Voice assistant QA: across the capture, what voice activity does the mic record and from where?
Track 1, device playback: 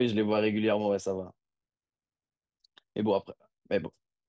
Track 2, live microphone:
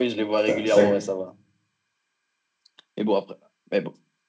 both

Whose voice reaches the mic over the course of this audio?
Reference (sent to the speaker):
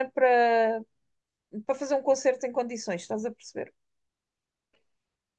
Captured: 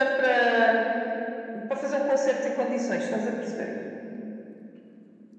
echo only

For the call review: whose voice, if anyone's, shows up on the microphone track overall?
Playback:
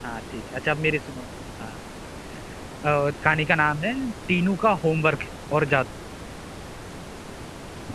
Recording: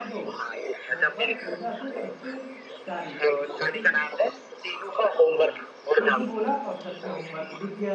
both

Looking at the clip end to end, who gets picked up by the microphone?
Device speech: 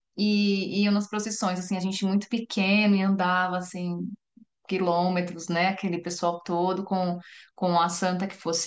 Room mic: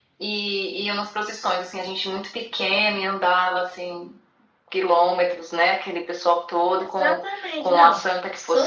both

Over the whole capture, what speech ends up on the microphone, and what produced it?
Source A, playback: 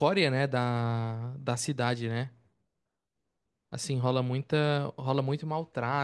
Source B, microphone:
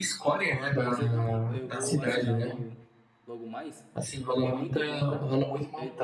both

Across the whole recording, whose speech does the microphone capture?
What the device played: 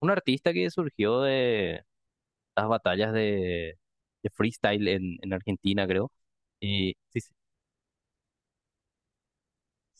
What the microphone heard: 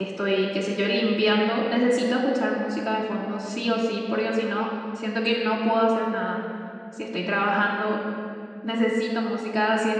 user only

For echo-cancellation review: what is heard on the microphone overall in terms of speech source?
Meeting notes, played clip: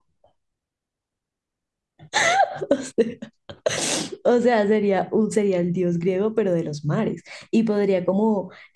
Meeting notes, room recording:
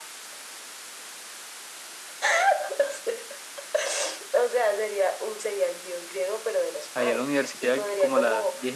both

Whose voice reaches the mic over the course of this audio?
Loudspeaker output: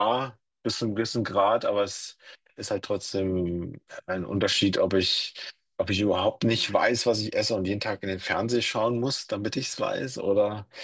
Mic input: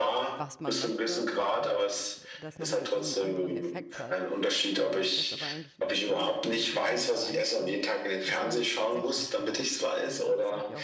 both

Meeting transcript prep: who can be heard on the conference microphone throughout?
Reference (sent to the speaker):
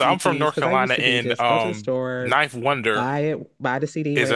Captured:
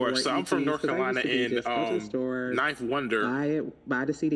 echo only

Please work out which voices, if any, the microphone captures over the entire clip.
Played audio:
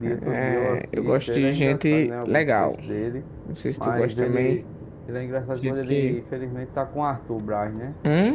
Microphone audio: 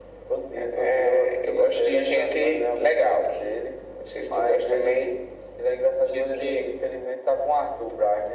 echo only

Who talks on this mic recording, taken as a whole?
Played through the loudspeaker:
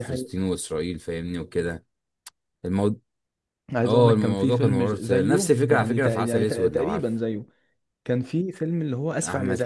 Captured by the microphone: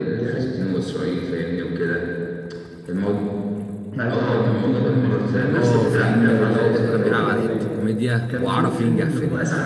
both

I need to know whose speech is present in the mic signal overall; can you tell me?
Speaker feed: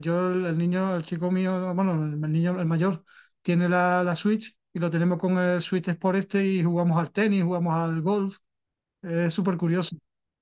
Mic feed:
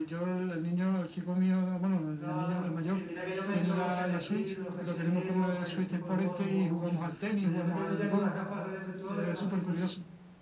both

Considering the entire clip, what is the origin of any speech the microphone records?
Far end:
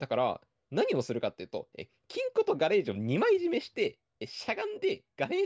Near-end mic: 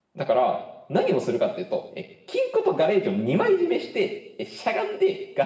echo only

